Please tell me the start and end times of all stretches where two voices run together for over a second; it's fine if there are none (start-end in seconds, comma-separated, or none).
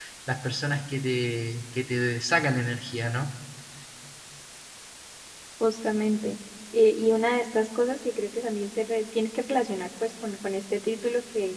none